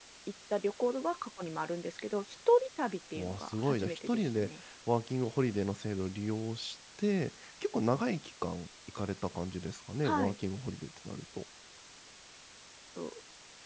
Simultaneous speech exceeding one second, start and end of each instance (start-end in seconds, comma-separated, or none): 3.1-4.5